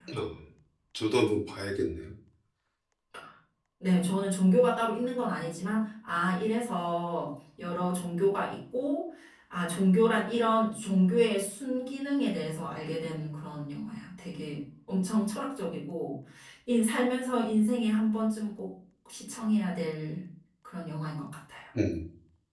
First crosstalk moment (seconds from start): none

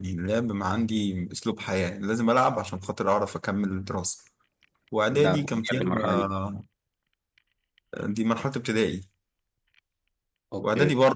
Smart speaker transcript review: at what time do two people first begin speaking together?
5 s

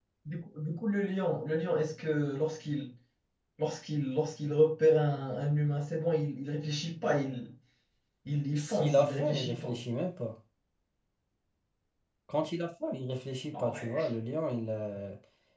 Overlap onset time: 9 s

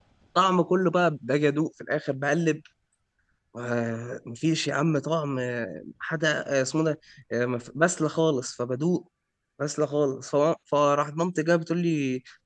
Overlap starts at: none

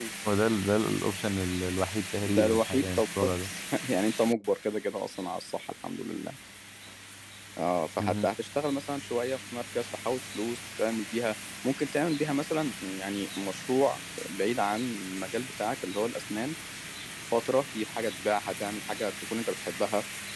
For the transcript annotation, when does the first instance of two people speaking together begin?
2 s

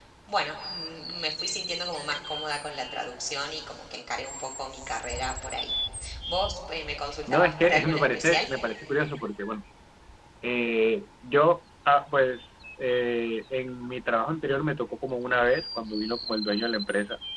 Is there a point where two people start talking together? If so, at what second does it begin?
7 s

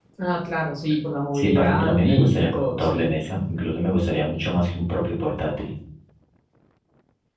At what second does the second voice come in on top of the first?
1 s

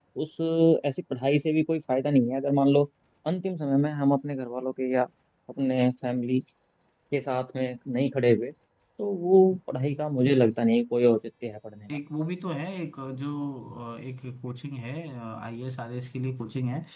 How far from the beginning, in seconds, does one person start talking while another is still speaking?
none

